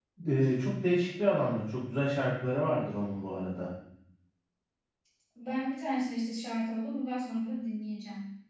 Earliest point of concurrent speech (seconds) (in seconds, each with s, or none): none